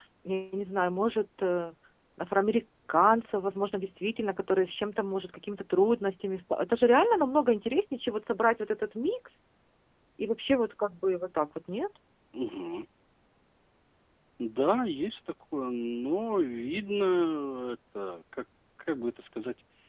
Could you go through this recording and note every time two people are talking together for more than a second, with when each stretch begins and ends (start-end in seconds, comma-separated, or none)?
none